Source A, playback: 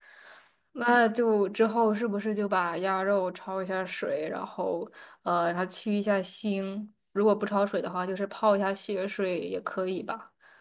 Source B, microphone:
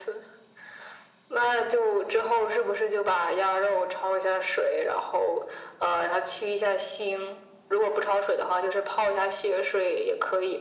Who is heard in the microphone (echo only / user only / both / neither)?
echo only